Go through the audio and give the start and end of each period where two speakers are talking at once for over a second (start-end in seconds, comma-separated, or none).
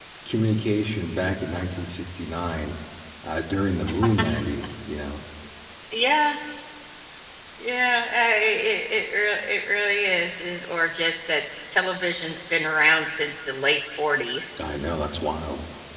none